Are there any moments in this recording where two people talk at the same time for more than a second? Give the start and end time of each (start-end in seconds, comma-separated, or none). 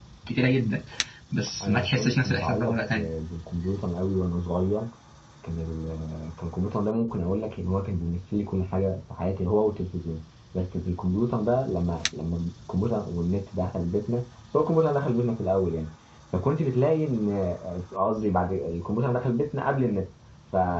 1.6-3.1